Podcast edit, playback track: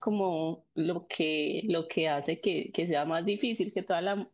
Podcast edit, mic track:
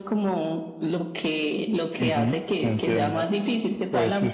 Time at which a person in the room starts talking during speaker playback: 2.0 s

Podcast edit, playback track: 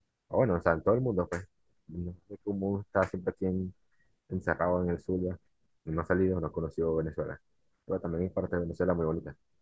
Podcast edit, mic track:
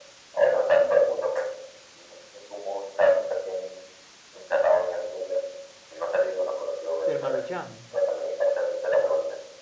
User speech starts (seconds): 7.0 s

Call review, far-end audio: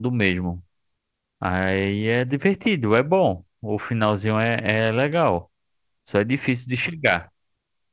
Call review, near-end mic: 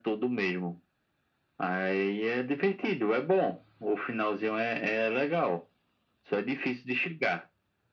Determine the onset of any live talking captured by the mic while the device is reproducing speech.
none

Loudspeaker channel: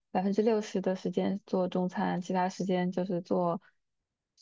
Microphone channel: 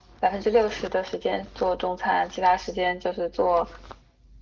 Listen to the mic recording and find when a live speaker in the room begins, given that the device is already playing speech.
none

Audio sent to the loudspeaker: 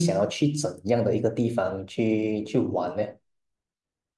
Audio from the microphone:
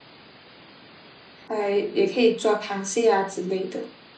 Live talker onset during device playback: 1.5 s

